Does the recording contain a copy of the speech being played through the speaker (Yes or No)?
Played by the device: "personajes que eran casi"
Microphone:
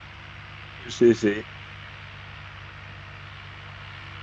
No